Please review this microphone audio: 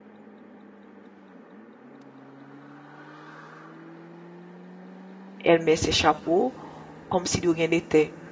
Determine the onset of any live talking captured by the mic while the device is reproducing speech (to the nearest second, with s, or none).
5 s